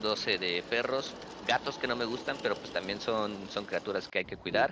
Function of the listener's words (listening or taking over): listening